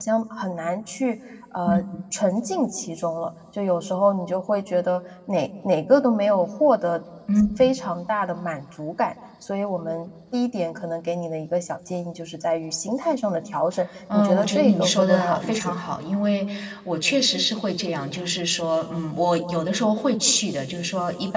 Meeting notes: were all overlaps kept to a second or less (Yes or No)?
No